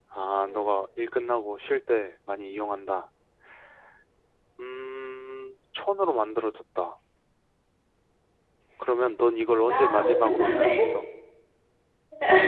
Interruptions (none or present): present